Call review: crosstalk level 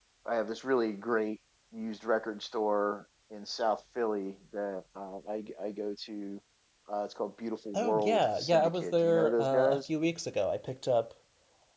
present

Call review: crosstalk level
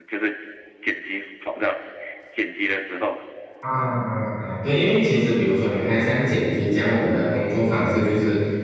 none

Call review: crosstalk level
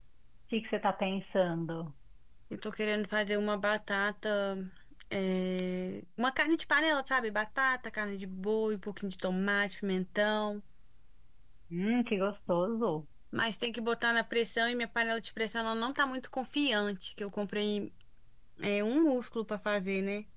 none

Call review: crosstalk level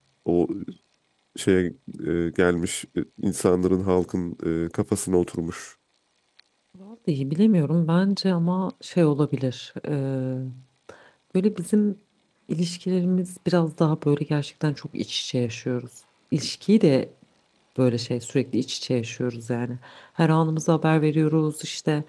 none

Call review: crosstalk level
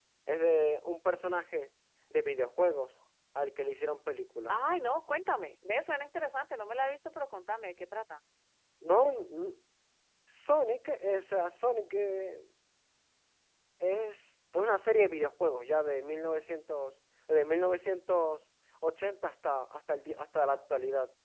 none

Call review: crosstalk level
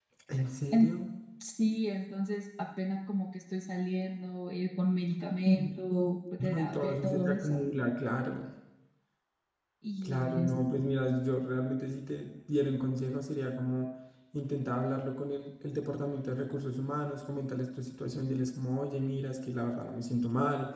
present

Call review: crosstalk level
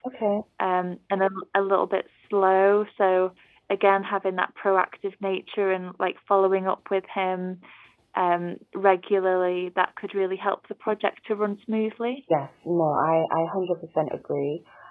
none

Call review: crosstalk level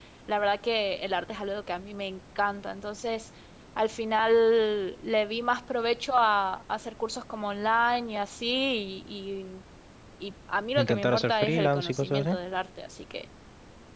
present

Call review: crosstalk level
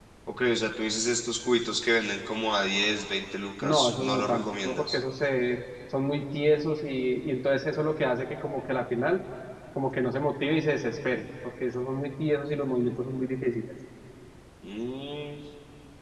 present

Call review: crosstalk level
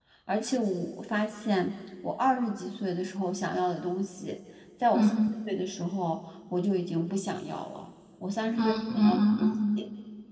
present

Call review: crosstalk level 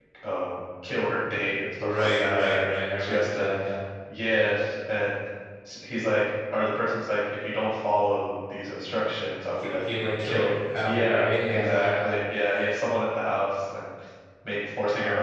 present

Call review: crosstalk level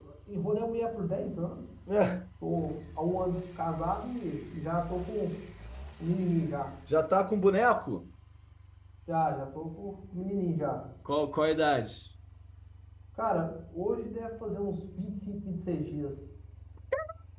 none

